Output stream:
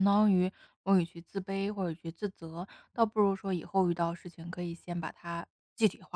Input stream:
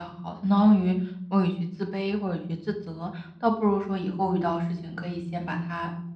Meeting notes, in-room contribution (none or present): none